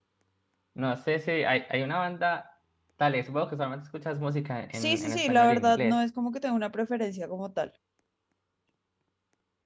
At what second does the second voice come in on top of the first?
5 s

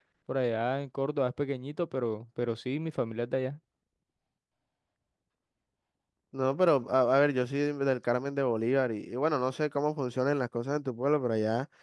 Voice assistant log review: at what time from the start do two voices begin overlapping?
none

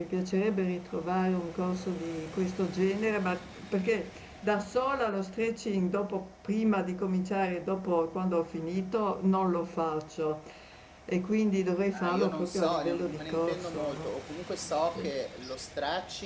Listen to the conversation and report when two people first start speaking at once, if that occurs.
12 s

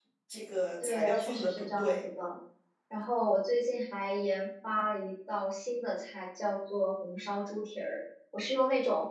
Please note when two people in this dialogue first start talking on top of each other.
1 s

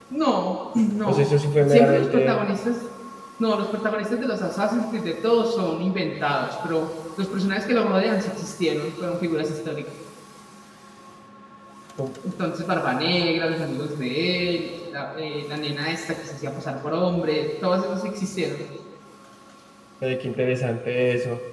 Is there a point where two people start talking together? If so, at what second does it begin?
1 s

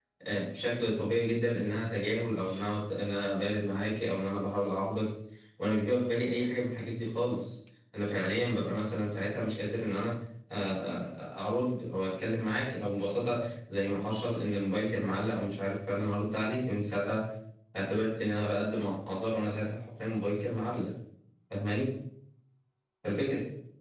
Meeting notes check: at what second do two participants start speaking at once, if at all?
none

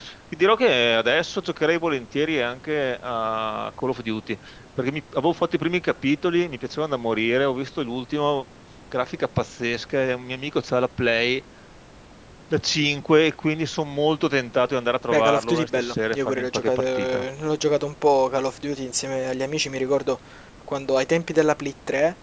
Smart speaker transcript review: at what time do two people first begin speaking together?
15 s

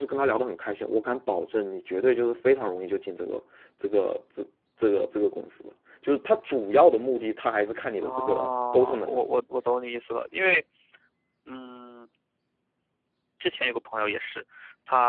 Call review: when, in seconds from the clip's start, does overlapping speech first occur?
8 s

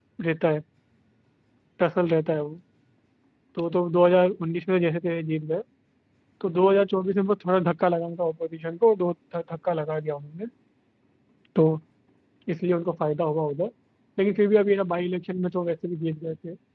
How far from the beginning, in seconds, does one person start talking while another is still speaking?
none

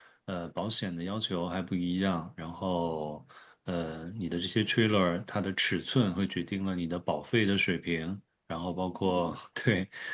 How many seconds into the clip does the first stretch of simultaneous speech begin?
none

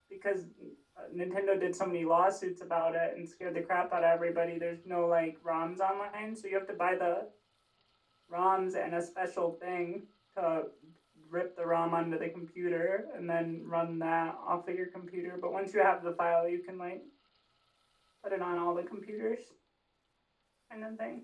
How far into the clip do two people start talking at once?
none

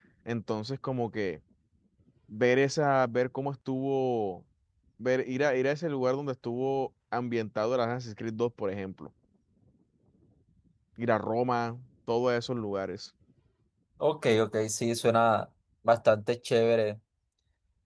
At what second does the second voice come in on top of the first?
none

